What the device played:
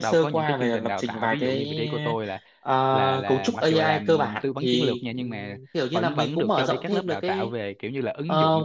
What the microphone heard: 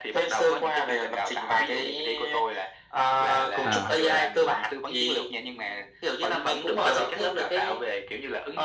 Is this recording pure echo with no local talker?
No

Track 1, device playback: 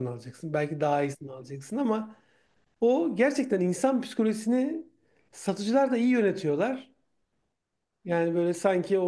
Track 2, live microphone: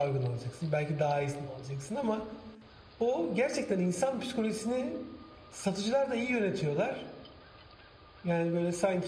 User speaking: No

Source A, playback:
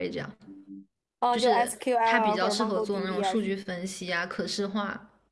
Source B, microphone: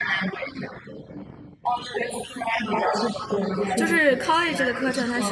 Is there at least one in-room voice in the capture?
Yes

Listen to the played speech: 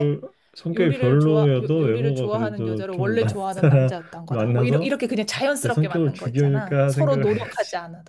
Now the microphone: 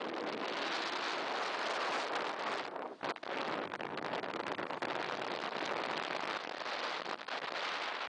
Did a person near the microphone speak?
No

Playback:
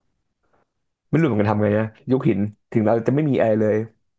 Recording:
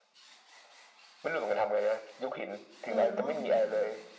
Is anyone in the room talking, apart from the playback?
Yes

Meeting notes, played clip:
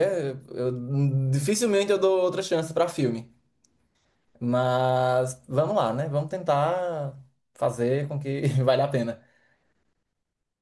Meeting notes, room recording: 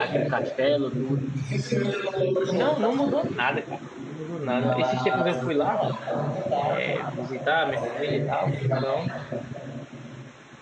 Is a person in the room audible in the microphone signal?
Yes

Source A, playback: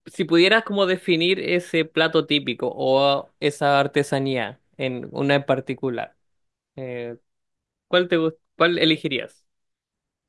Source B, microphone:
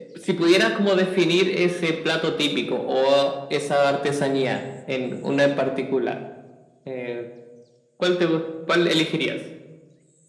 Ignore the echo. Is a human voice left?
No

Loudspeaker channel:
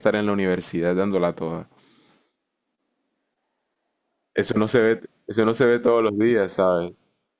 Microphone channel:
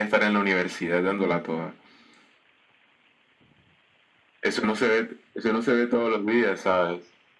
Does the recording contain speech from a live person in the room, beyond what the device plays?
Yes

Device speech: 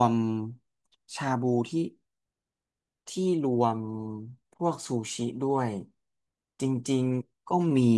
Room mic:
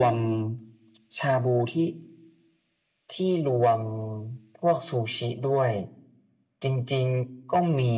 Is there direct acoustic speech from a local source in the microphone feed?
No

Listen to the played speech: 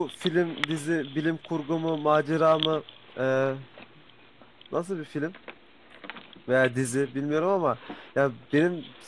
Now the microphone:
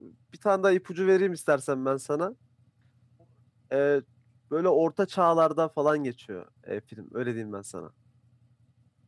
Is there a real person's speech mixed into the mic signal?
Yes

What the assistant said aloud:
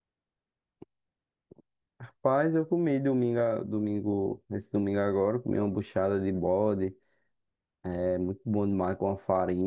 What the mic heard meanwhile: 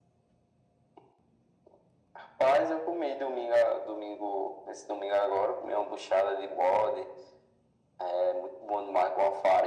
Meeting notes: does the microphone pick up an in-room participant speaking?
No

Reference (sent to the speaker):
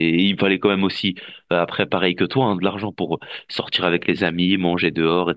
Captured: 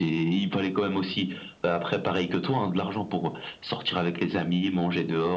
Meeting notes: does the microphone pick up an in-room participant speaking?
No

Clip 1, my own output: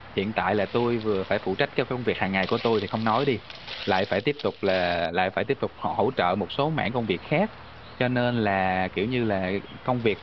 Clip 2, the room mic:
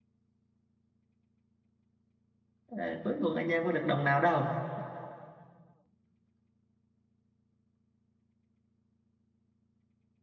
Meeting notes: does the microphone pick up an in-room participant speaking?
Yes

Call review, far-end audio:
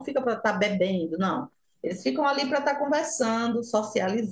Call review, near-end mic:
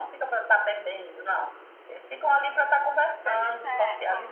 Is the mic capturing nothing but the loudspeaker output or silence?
No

